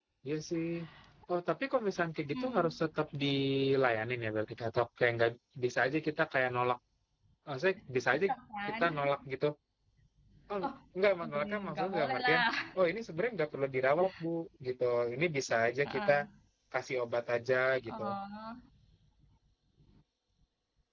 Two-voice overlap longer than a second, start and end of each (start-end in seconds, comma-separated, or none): 11.2-12.4